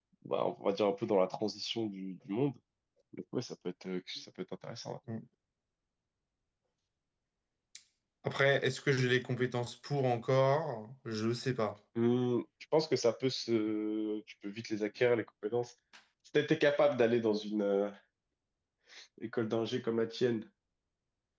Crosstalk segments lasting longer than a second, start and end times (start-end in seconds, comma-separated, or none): none